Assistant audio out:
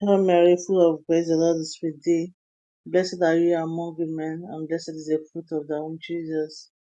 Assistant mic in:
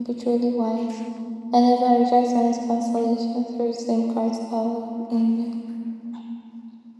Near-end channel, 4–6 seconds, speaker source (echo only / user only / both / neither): user only